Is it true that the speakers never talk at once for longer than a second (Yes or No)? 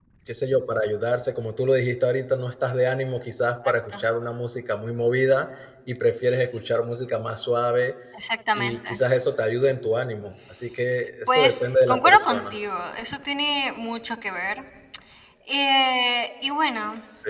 No